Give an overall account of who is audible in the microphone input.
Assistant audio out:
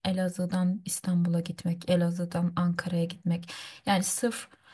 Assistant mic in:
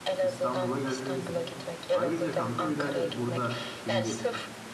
both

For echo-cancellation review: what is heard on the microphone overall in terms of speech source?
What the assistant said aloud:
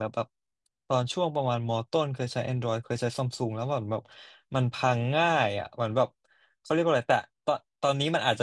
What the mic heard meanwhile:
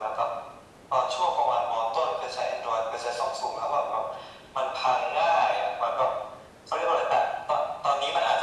echo only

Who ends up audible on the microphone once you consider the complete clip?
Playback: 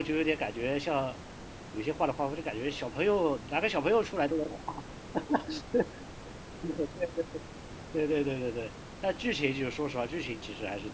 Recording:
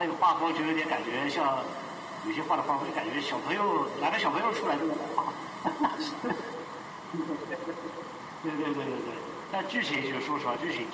echo only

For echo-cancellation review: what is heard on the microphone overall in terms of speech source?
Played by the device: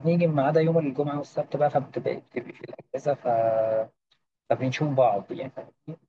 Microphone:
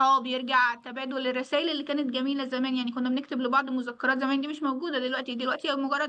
user only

